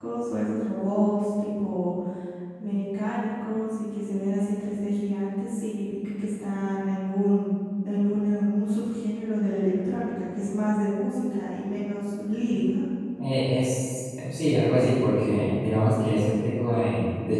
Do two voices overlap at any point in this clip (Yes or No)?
No